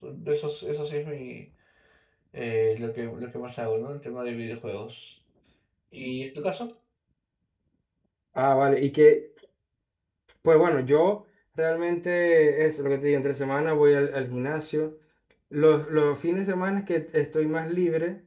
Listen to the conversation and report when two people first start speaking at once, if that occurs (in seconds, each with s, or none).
none